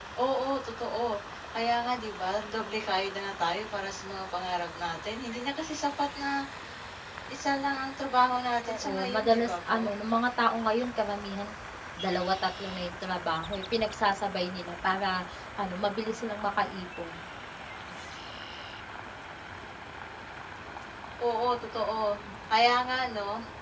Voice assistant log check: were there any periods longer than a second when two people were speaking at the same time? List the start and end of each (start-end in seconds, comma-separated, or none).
8.7-9.9